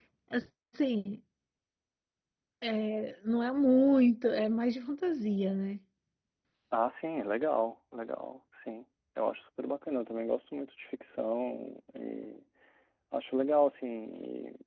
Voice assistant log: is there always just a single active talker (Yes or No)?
Yes